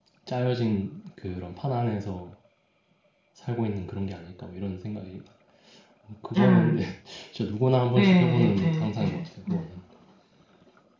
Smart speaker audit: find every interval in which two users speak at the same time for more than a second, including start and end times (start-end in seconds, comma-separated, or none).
8.0-9.6